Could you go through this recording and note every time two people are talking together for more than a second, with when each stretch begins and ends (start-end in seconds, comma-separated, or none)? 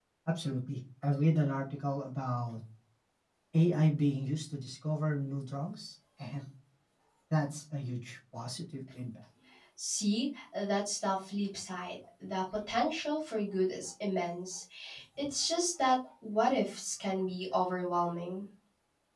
none